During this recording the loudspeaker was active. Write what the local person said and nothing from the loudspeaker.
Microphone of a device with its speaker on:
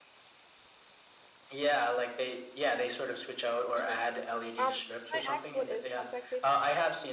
Mhm. Um, can I ask what is contact paper?

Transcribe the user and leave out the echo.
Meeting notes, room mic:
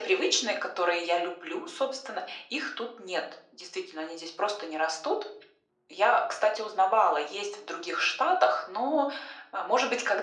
none

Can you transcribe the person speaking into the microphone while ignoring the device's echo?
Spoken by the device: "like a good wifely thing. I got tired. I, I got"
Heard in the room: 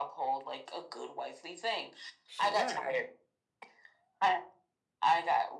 Sure.

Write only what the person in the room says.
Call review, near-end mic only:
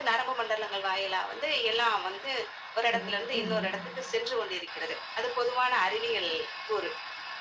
சரி, சரி.

